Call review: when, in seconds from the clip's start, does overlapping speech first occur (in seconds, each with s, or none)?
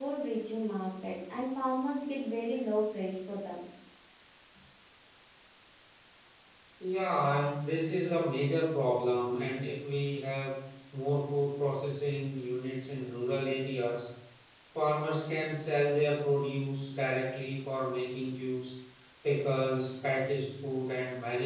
none